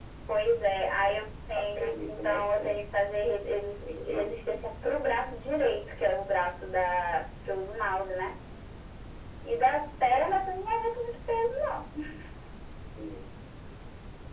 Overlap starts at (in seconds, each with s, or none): 1.6 s